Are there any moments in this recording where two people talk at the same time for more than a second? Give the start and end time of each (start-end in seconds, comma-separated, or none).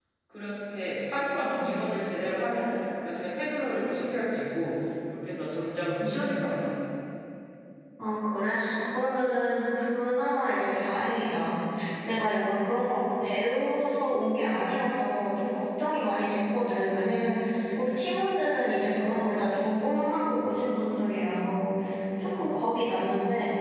none